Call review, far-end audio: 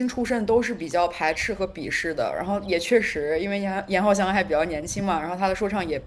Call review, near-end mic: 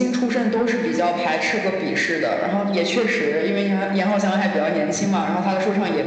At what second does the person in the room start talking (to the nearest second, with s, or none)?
none